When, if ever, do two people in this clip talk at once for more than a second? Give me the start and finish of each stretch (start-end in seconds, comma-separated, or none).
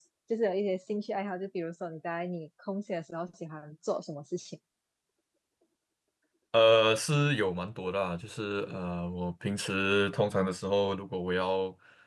none